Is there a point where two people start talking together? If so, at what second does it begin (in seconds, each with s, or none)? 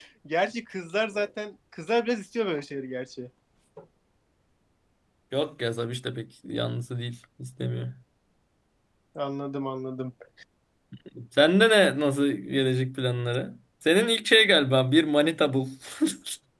none